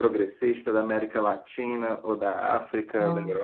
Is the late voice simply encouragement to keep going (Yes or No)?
No